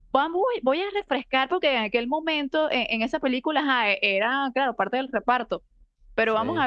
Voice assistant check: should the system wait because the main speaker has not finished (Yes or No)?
Yes